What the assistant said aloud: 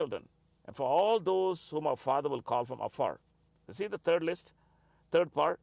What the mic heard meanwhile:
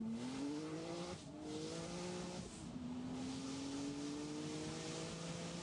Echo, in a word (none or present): none